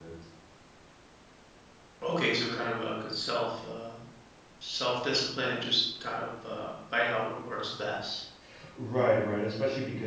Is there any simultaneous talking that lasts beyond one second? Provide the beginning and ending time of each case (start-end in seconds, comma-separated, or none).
none